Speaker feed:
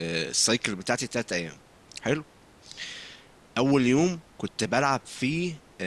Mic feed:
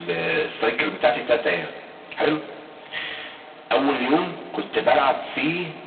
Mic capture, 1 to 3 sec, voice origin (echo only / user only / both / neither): echo only